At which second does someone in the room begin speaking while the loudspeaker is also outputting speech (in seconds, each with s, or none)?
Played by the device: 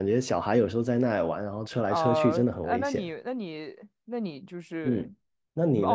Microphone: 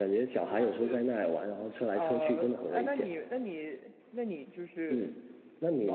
0.3 s